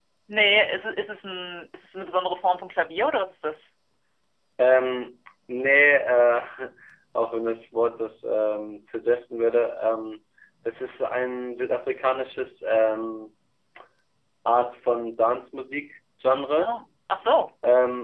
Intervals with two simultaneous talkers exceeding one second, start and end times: none

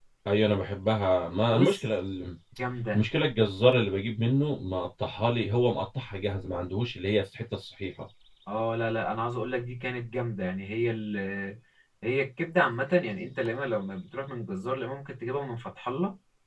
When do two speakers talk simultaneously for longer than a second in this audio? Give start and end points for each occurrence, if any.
none

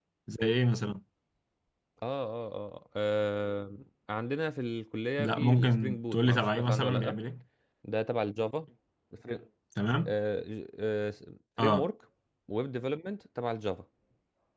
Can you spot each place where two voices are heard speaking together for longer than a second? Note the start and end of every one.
5.2-7.2

